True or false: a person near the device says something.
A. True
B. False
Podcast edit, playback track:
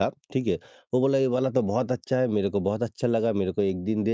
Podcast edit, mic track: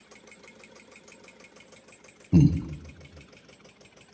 A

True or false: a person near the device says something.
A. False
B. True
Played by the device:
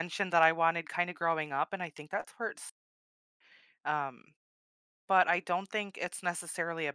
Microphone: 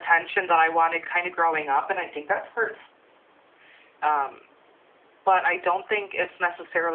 A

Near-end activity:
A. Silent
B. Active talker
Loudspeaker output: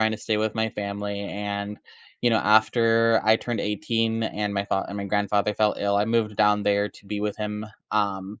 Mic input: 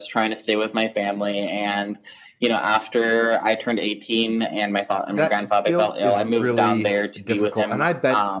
B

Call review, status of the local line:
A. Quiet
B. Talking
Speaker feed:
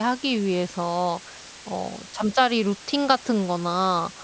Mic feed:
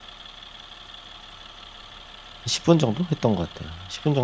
B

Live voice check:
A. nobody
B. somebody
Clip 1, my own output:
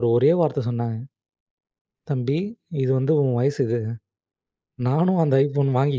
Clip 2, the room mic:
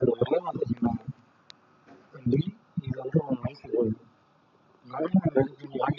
A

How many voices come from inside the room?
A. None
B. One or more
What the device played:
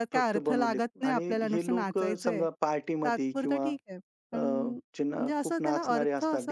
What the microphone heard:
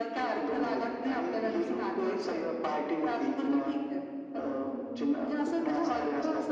B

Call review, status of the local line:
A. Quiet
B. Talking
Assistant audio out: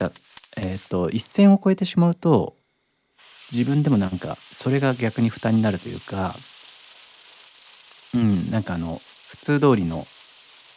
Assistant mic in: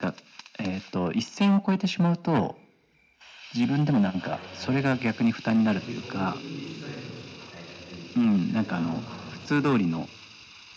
B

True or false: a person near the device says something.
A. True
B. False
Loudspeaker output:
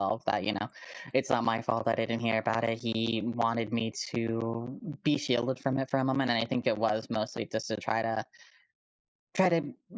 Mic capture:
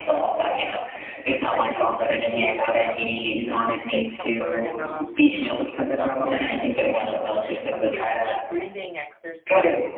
A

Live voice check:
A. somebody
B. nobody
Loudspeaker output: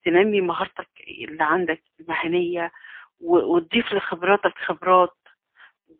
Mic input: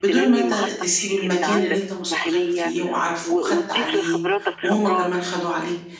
A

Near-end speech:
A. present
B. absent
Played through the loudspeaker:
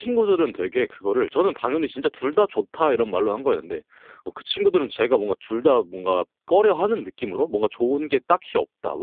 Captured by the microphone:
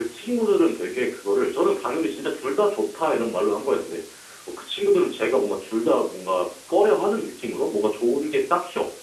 B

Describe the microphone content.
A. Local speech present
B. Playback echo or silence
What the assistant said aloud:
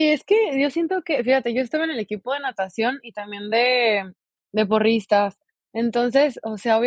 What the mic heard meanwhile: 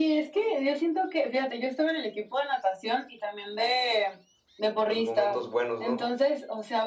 A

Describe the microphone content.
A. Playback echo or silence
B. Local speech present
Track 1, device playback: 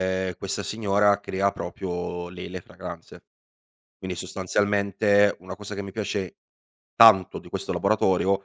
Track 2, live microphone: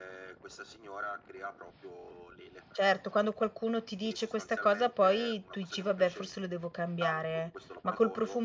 B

